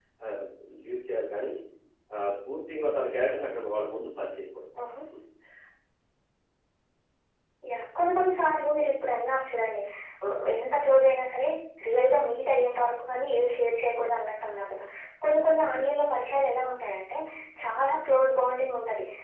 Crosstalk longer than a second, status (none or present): none